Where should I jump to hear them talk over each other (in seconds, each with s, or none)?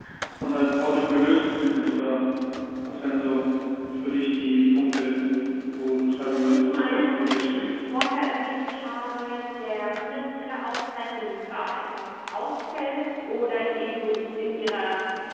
6.3 s